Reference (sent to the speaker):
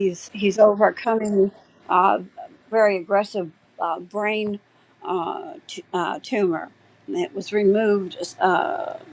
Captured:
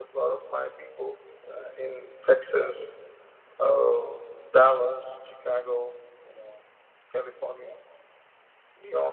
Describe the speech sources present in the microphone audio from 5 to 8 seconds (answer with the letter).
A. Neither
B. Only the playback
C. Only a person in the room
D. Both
C